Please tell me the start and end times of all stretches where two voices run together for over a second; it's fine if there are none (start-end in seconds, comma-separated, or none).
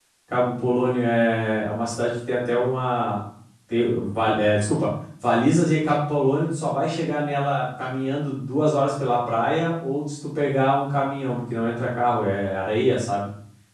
none